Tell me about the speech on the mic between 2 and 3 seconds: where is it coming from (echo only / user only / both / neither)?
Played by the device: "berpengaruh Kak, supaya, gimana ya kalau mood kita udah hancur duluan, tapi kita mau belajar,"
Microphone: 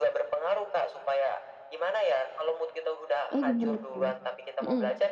echo only